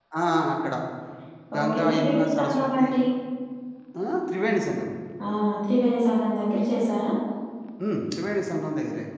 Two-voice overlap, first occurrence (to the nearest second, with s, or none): 2 s